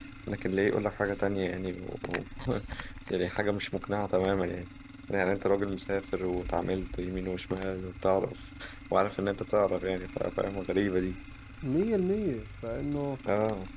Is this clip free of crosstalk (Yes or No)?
Yes